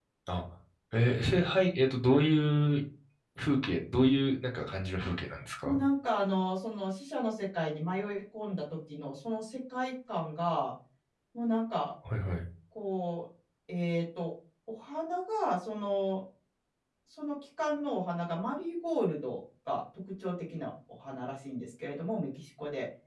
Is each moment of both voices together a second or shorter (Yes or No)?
Yes